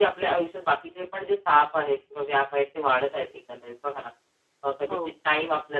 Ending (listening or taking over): listening